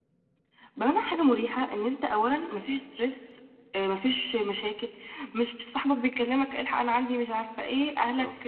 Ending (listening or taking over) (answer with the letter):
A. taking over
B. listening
B